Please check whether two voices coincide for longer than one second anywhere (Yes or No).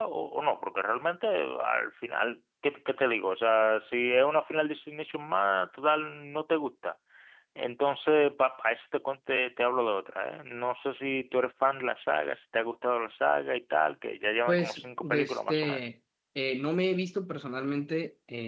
Yes